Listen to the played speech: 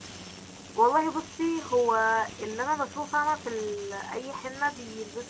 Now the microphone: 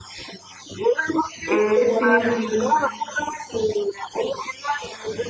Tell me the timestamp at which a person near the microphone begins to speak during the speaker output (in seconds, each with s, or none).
1.5 s